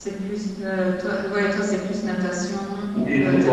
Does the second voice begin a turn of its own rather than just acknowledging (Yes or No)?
Yes